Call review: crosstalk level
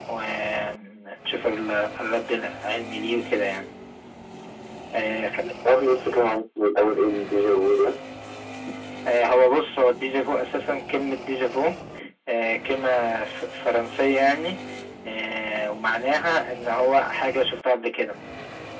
none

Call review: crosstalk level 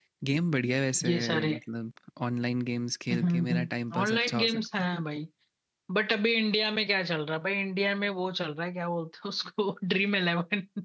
present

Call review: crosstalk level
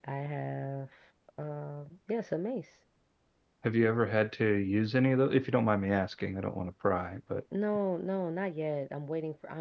none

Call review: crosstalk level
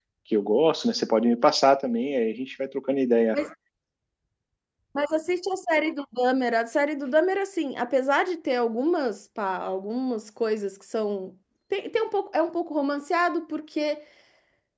none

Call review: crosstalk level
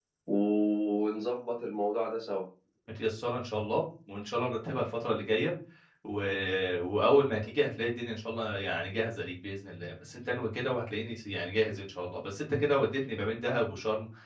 none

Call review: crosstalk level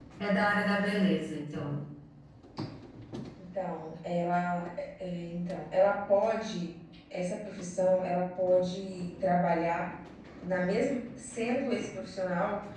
none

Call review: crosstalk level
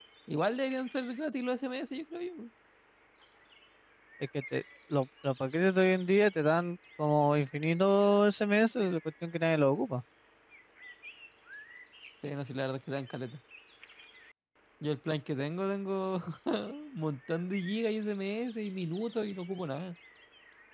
none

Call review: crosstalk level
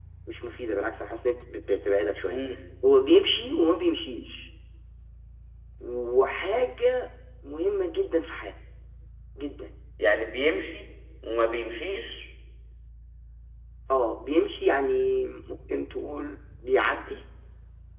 none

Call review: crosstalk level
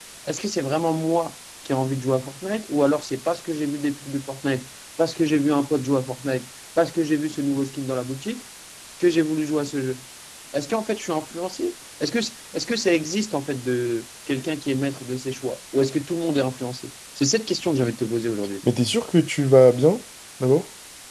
none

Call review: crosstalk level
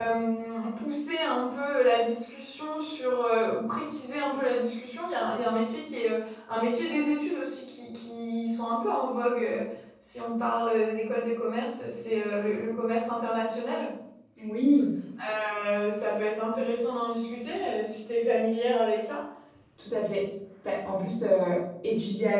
none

